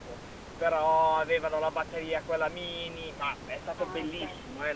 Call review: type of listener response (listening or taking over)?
listening